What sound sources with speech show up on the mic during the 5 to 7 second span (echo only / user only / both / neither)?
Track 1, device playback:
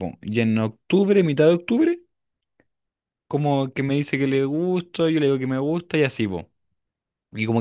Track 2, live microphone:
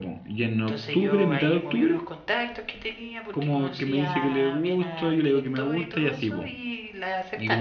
both